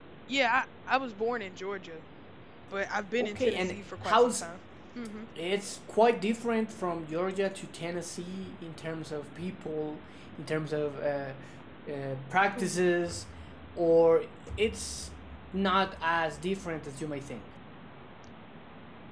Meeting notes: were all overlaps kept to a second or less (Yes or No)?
No